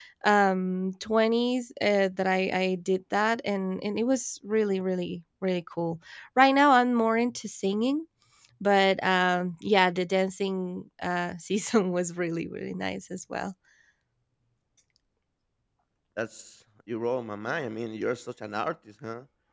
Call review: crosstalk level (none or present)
none